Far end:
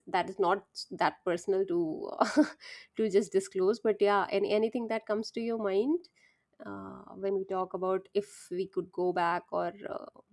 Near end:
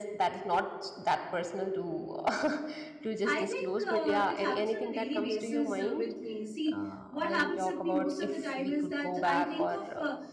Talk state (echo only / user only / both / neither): both